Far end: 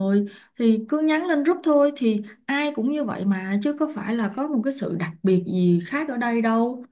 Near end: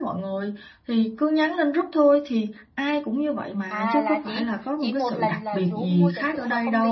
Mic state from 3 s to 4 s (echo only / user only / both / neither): both